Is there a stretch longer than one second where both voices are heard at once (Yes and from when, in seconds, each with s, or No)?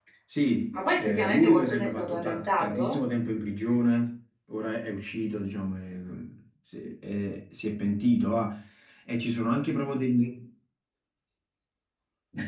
Yes, from 0.7 s